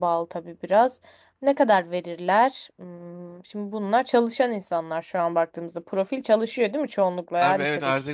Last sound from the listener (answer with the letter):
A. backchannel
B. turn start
B